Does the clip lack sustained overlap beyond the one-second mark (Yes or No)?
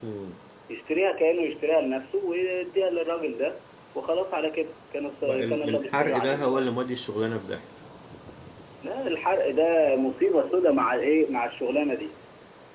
No